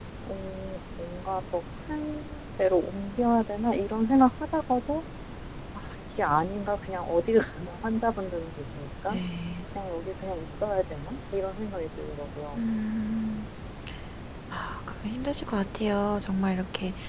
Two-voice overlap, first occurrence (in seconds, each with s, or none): none